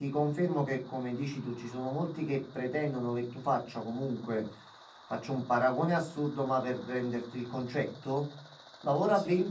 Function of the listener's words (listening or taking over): listening